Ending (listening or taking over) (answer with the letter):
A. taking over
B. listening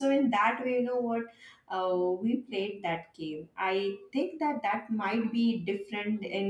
B